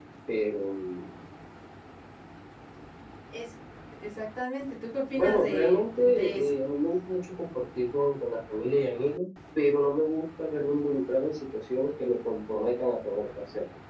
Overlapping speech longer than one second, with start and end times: 5.2-6.6

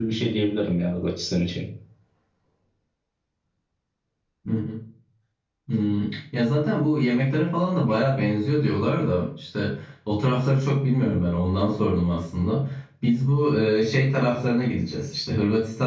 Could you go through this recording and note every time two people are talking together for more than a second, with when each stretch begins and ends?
none

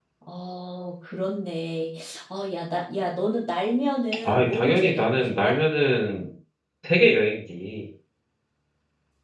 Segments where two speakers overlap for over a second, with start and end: 4.2-5.5

